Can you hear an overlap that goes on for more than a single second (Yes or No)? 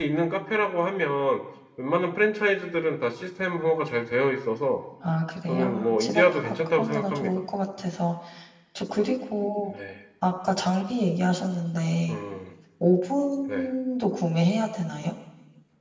Yes